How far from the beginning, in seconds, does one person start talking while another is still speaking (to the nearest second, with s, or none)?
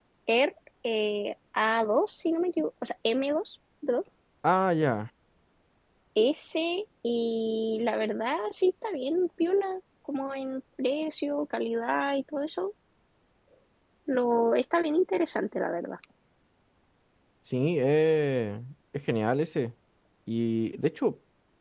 none